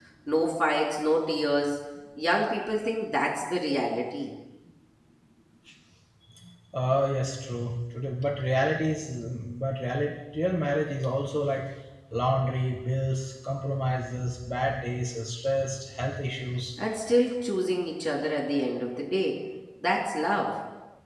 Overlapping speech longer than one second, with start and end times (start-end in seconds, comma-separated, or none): none